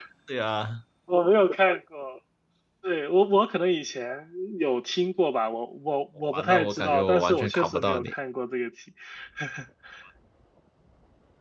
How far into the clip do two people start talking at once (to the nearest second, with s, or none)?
6 s